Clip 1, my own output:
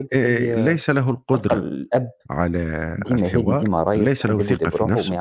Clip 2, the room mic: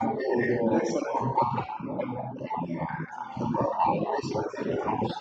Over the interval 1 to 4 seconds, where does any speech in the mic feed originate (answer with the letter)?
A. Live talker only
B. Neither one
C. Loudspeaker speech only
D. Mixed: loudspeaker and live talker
C